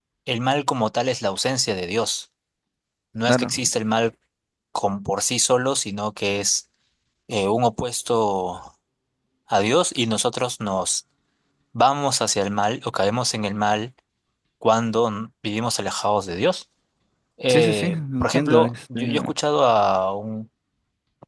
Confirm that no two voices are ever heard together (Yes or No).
No